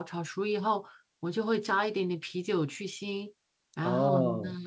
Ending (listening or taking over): taking over